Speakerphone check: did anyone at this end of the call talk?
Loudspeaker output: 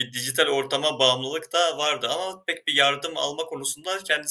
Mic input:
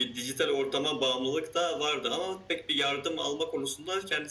No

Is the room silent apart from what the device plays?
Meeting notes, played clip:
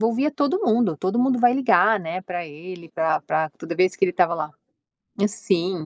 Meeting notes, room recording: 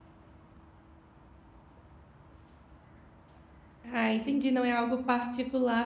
No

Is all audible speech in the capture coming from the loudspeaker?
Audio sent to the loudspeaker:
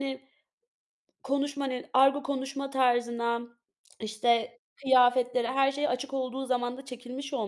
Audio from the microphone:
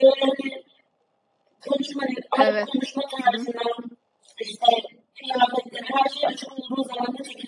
No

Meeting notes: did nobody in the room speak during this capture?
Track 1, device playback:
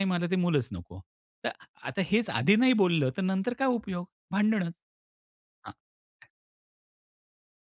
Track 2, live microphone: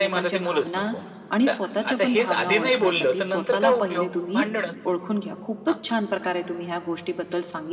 No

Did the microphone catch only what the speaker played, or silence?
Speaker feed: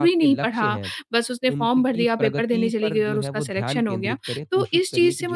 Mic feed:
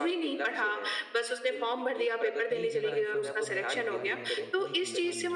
No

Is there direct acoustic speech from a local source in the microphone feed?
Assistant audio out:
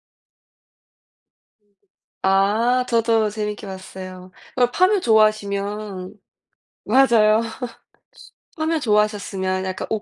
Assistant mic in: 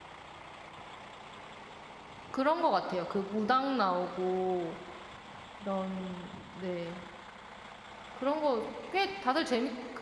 Yes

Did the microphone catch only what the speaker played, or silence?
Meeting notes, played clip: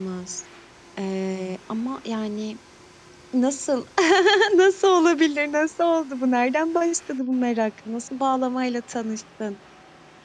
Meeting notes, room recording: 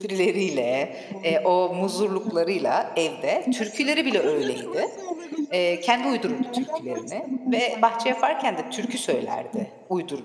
No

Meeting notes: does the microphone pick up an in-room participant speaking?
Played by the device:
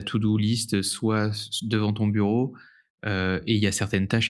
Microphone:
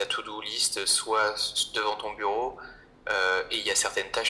No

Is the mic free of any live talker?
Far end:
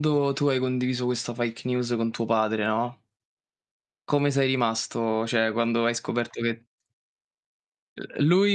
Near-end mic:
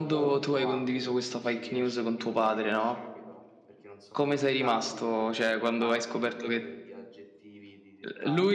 No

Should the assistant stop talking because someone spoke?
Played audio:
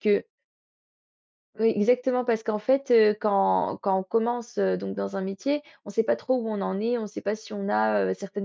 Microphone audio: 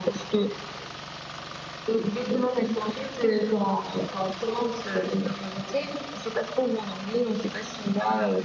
No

